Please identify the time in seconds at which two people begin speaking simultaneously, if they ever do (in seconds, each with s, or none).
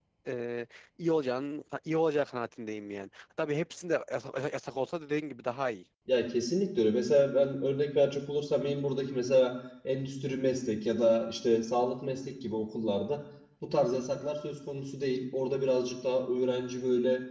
none